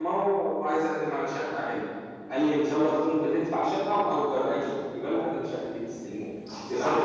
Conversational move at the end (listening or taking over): taking over